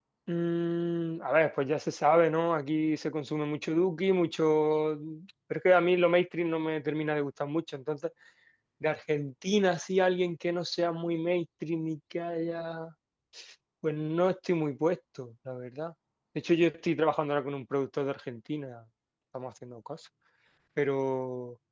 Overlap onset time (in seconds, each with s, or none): none